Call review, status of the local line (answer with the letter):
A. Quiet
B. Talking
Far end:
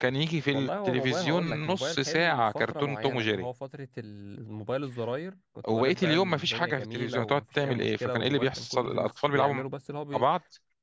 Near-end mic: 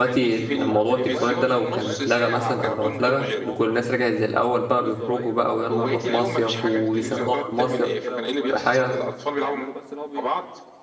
B